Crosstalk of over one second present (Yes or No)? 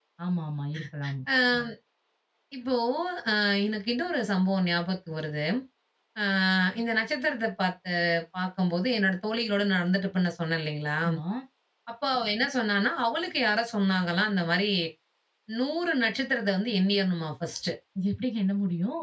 No